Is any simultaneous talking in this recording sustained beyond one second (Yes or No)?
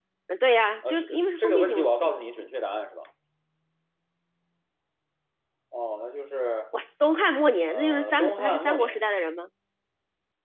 Yes